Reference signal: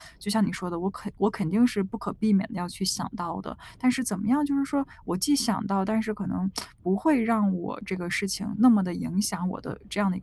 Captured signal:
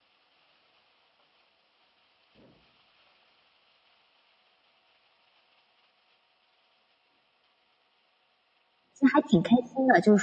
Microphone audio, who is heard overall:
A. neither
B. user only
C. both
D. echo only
B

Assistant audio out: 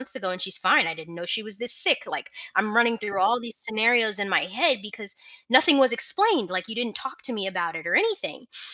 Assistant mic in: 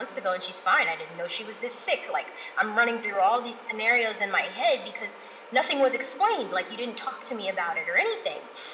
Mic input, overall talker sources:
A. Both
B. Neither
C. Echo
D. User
C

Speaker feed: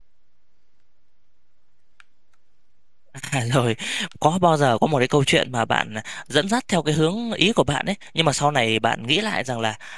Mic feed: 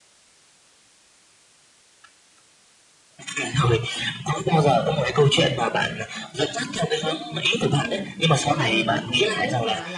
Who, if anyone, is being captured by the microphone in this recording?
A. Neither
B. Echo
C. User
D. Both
D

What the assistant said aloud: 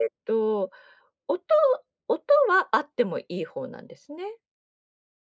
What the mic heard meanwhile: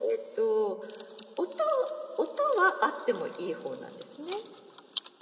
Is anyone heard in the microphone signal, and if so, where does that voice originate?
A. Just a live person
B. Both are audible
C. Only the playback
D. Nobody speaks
C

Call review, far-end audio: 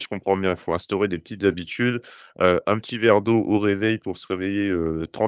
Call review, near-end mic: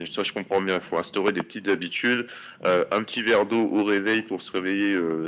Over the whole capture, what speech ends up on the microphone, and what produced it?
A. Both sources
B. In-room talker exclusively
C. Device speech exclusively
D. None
C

